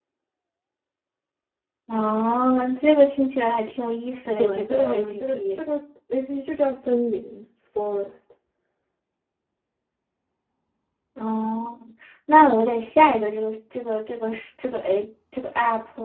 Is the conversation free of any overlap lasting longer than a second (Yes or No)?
No